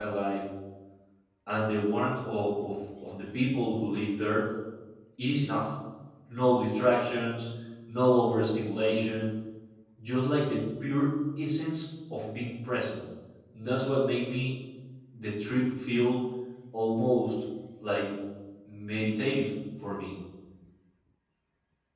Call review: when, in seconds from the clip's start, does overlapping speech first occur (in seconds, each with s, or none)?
none